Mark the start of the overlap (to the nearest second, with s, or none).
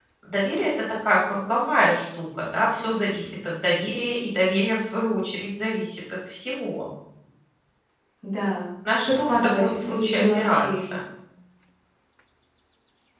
9 s